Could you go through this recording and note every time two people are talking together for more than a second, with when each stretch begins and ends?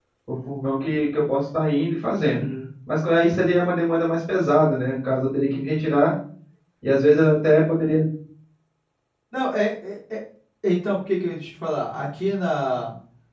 none

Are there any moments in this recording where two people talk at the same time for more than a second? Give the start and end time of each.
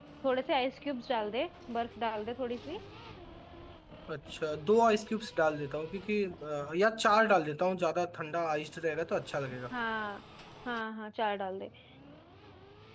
none

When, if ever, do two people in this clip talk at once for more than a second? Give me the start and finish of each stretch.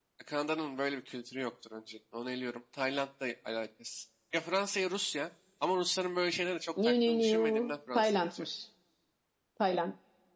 6.8-8.4

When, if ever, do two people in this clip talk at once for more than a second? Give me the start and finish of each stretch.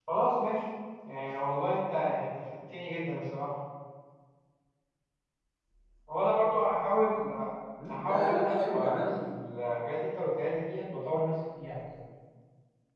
7.9-9.3

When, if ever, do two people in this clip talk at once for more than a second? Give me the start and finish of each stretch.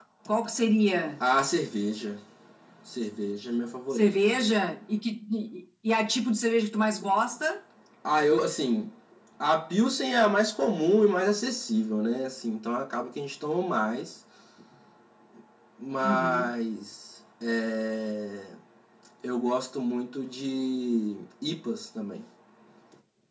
none

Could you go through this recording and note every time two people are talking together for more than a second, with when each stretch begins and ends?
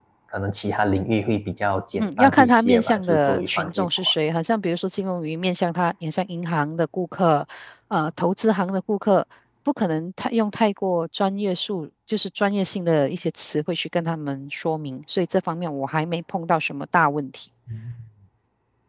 2.0-3.9

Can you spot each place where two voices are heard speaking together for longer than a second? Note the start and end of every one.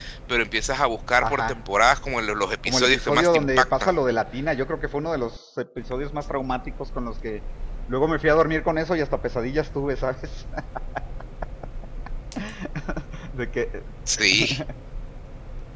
2.6-3.9

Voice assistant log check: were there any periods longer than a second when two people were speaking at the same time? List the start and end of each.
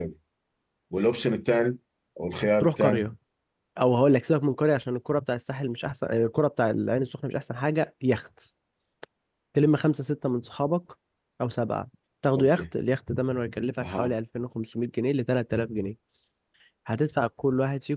none

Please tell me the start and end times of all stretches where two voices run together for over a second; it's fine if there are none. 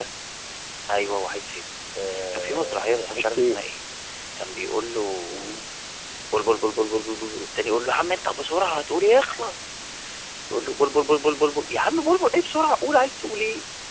2.3-3.6

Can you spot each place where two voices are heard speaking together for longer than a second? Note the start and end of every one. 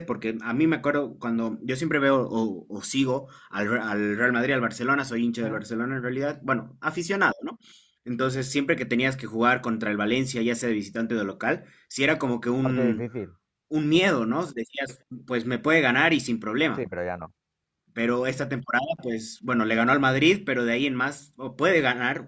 none

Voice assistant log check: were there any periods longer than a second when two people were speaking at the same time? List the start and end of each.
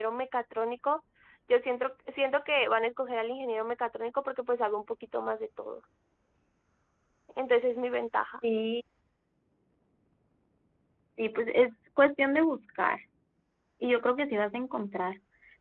none

